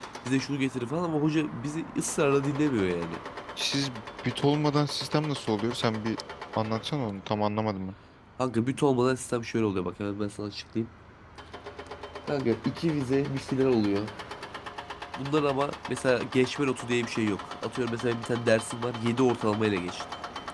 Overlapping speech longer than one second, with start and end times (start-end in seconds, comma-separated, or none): none